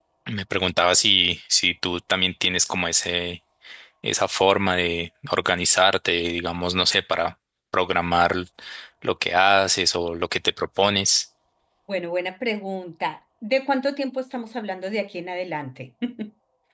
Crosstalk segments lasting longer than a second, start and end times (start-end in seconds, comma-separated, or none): none